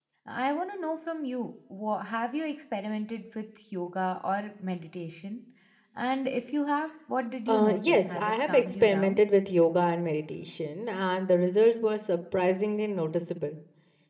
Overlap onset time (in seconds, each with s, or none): 7.5 s